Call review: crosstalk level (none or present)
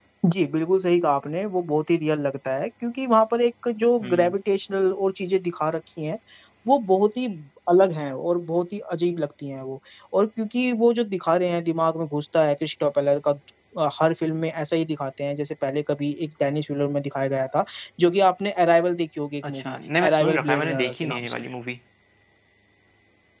present